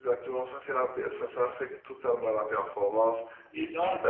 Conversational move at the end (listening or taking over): taking over